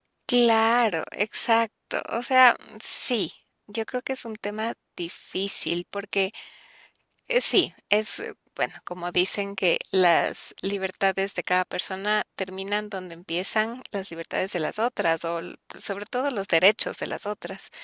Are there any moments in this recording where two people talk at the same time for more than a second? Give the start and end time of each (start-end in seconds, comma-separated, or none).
none